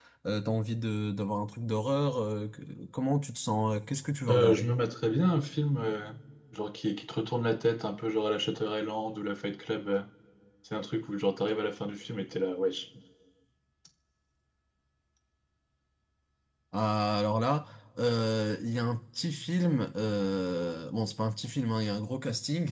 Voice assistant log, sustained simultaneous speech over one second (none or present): none